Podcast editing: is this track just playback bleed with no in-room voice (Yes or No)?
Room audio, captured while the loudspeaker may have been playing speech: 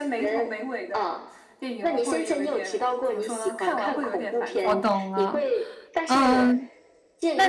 No